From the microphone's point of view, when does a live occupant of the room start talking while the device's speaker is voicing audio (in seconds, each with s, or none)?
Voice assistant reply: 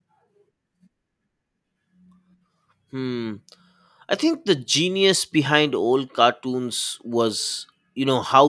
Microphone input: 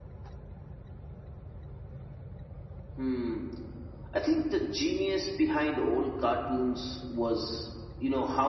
none